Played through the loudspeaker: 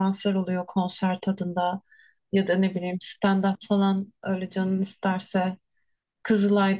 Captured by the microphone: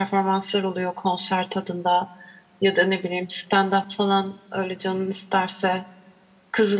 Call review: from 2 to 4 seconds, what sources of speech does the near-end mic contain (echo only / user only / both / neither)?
echo only